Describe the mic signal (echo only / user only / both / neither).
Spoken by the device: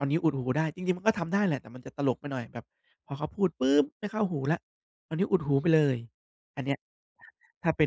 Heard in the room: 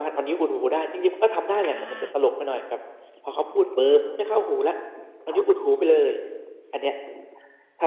both